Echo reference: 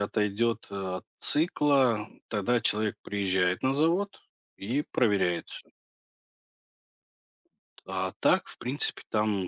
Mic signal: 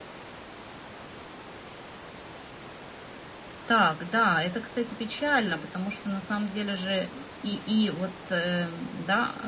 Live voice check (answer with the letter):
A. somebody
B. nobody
A